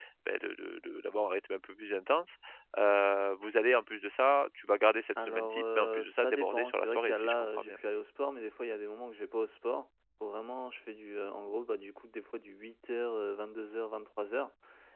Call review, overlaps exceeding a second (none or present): present